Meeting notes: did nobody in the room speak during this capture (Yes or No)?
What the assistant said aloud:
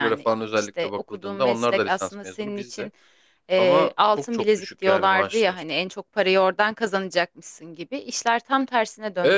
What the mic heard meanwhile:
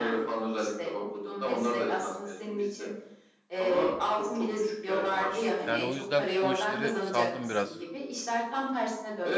No